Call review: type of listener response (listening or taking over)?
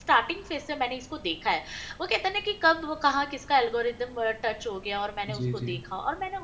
listening